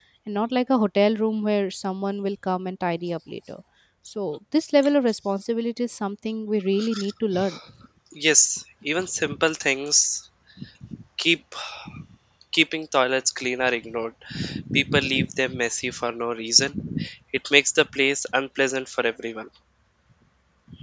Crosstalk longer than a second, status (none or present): none